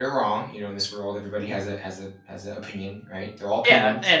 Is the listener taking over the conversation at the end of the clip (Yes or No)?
Yes